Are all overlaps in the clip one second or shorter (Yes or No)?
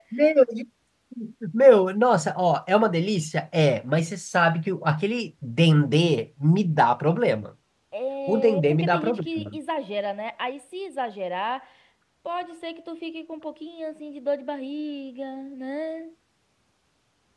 No